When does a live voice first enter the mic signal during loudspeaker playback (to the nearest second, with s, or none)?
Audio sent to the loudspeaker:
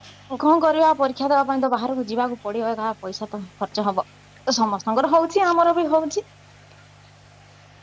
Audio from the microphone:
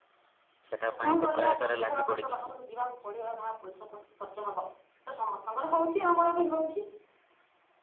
1 s